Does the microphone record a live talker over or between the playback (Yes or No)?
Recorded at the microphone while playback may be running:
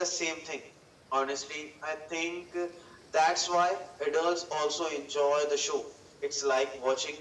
No